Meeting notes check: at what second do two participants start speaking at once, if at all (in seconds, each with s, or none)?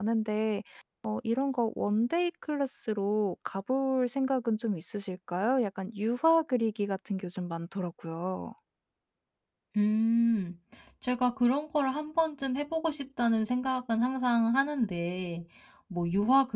none